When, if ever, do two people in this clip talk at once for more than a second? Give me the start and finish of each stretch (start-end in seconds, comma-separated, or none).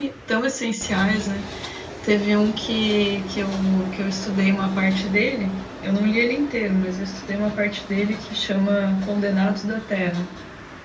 none